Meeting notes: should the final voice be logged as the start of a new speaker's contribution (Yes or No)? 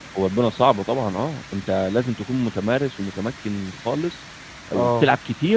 No